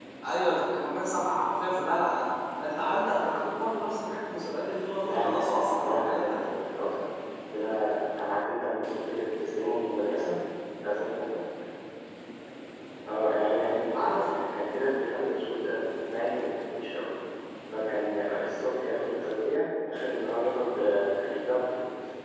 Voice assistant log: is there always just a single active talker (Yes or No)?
No